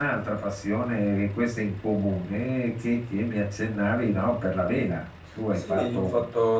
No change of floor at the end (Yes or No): No